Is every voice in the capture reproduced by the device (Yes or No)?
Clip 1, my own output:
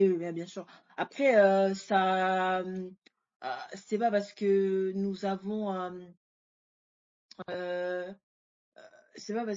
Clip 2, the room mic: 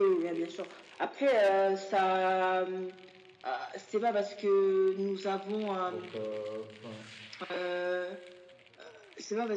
No